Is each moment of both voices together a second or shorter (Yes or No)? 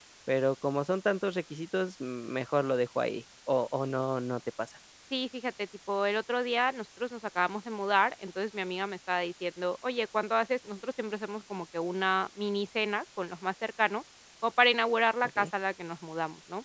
Yes